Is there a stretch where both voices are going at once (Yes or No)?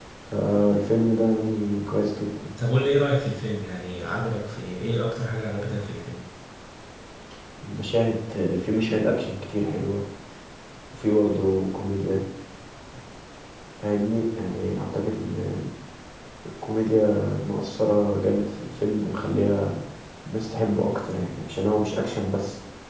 No